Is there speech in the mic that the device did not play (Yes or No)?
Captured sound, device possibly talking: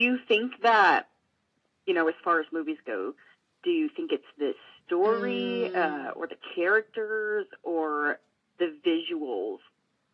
Yes